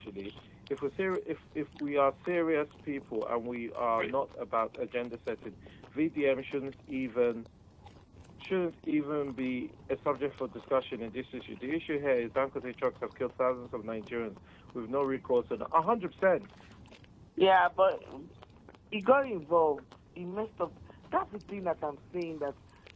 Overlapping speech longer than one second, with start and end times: none

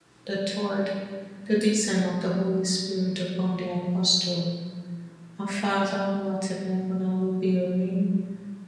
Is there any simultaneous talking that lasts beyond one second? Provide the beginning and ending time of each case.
none

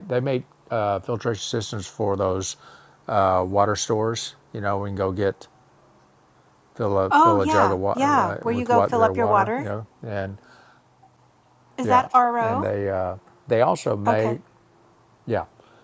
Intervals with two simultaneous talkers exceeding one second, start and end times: 7.1-9.7

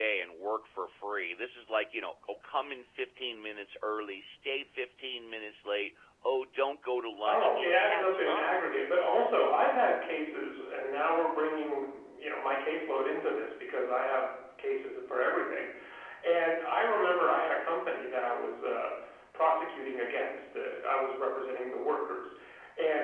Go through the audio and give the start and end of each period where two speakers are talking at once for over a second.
7.2-8.5

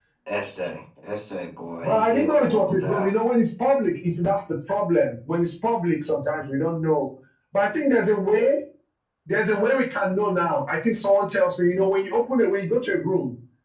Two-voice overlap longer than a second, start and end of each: 1.8-3.1

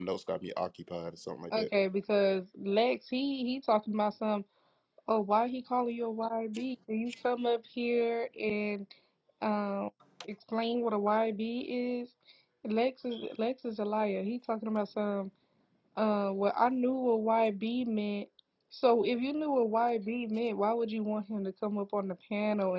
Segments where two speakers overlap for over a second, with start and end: none

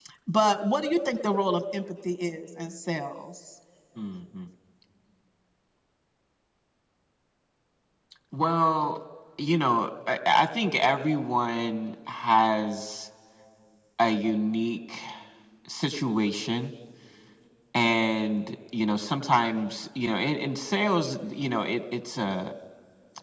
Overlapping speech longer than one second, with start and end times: none

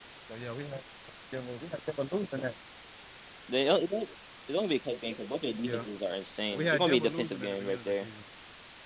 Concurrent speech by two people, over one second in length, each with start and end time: 6.5-8.1

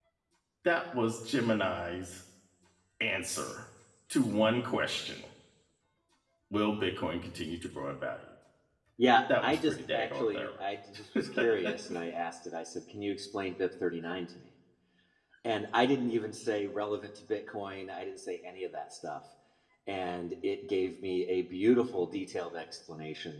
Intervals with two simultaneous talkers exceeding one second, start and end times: 9.4-10.7

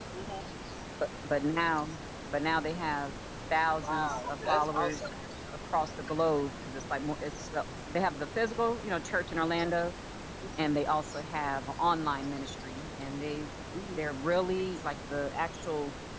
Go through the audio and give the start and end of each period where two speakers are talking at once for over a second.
3.8-5.1

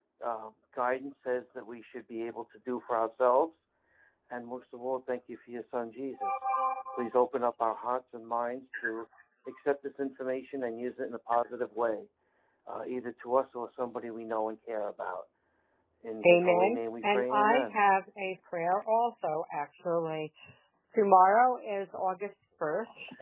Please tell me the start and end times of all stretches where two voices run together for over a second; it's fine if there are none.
16.2-17.8

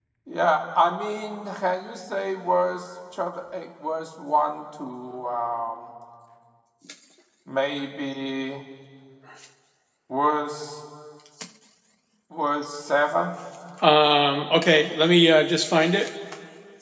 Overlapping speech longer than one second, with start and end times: none

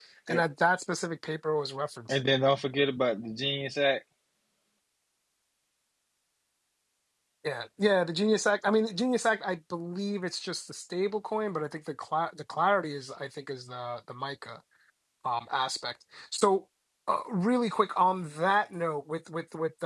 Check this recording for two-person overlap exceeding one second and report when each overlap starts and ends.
none

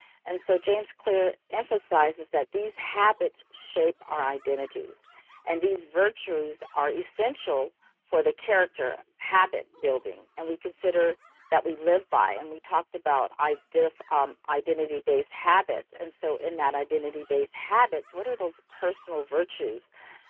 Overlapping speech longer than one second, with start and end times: none

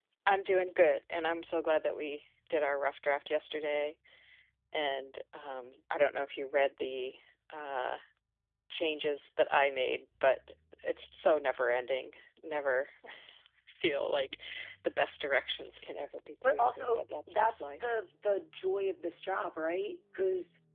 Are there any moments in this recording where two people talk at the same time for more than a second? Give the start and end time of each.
16.6-17.9

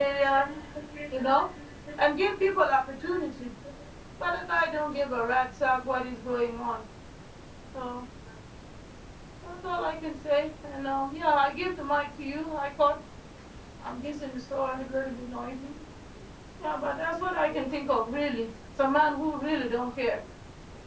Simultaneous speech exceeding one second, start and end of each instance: none

